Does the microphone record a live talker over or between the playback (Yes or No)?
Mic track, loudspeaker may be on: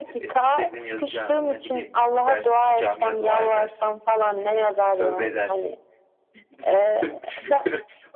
Yes